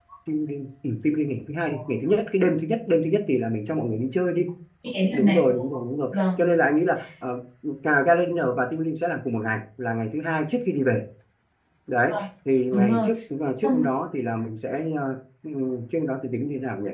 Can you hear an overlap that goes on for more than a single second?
No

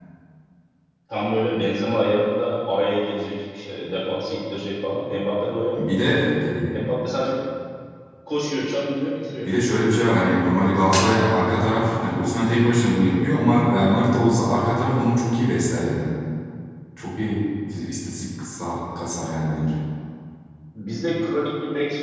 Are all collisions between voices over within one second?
Yes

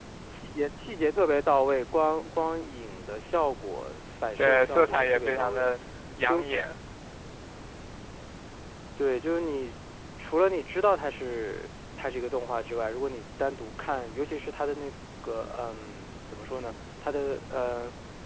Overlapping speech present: Yes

